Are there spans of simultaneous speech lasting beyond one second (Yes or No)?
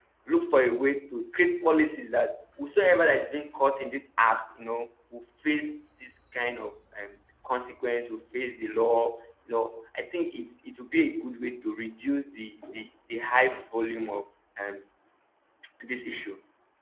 No